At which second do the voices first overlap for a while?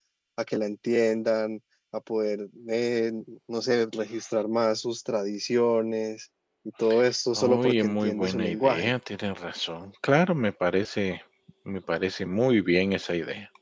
7.4 s

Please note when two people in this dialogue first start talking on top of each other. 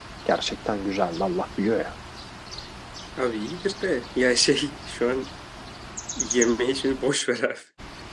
none

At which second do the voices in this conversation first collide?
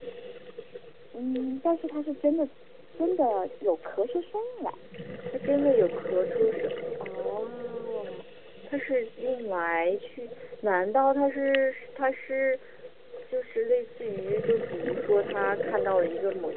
none

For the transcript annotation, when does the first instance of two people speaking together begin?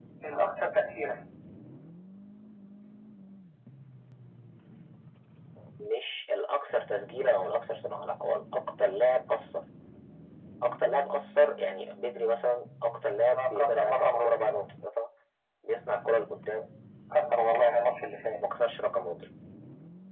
13.2 s

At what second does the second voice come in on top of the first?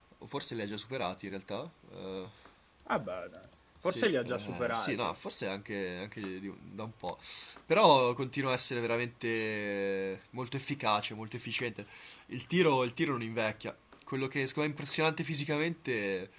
3.8 s

